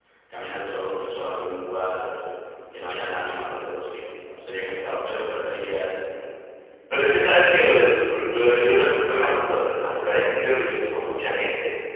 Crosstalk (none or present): none